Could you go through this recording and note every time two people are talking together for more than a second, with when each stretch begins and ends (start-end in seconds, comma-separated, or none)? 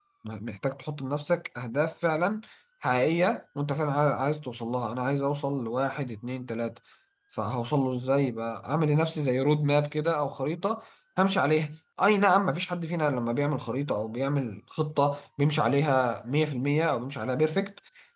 none